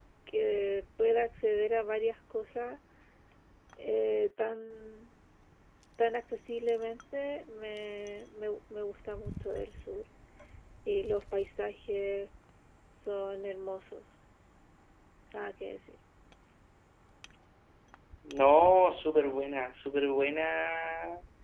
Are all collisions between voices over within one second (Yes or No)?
Yes